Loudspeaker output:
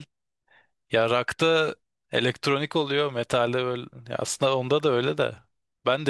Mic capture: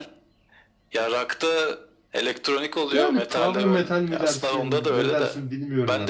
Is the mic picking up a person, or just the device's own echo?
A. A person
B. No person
A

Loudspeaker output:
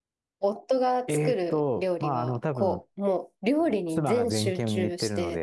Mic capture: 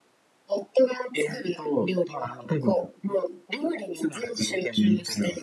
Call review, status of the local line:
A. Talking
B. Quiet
B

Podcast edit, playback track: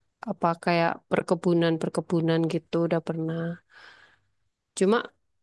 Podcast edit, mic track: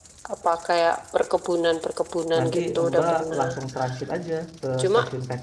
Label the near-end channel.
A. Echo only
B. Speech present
B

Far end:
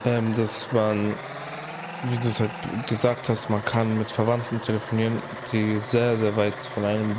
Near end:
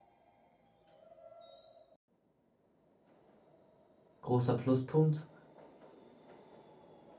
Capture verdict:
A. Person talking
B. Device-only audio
A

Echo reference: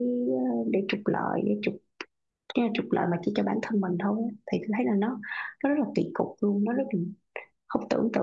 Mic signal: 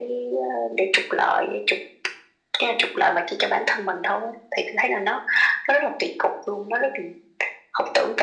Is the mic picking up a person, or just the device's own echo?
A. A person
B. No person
B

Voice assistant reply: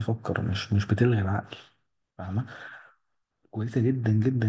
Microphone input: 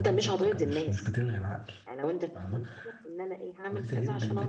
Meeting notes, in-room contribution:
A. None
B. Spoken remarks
B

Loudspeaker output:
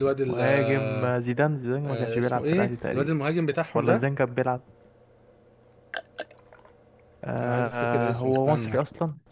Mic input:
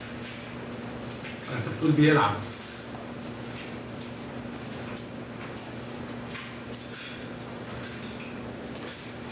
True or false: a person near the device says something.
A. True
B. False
A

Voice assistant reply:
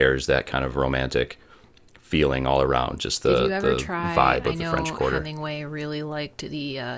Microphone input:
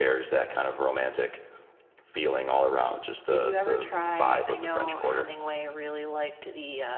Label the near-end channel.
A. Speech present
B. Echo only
B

